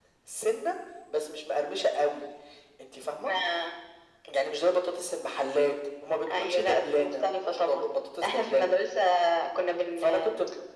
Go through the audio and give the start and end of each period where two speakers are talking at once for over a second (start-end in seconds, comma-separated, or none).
6.3-7.8